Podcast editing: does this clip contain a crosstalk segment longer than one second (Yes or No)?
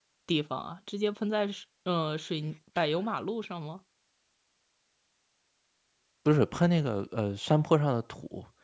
No